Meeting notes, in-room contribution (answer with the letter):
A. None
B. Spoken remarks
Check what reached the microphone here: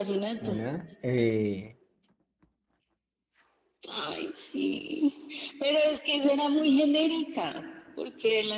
B